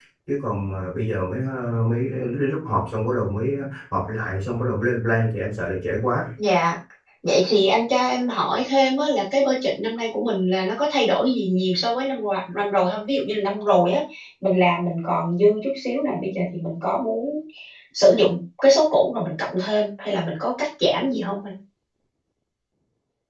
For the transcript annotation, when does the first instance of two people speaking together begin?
none

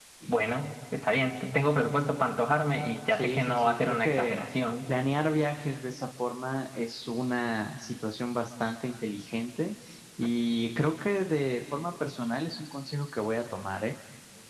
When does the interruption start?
3 s

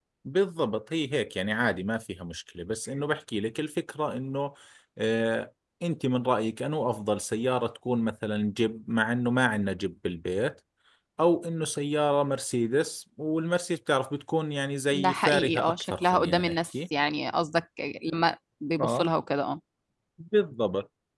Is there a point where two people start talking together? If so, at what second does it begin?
15 s

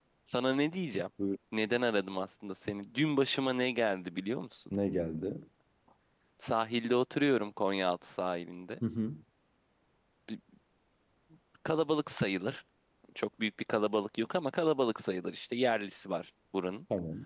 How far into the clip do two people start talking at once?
none

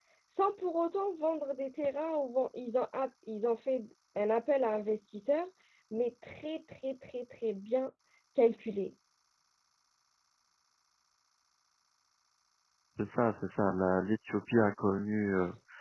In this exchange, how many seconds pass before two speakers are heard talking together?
none

